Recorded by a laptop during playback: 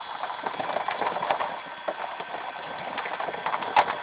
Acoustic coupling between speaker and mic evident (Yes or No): No